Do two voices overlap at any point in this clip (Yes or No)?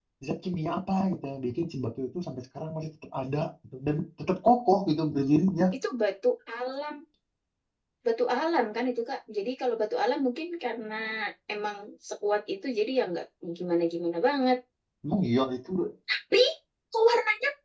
No